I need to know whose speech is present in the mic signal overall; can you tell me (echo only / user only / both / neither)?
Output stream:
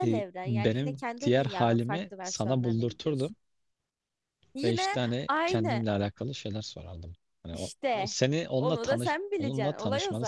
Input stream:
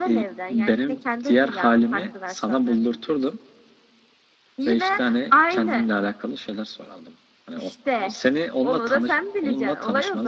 echo only